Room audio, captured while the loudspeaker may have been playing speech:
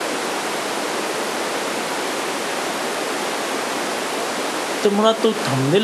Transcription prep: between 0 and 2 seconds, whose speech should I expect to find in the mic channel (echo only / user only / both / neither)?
neither